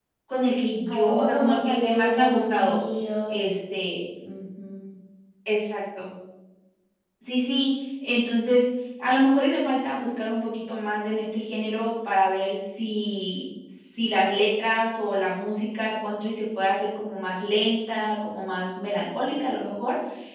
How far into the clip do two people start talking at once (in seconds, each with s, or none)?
0.9 s